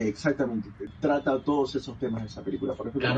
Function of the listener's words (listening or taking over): taking over